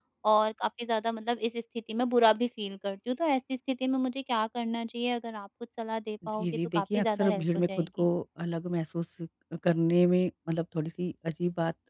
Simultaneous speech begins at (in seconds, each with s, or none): 6.4 s